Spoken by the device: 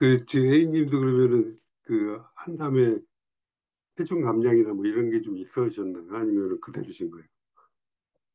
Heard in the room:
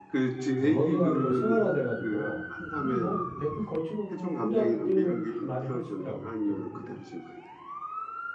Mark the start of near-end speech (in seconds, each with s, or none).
0.6 s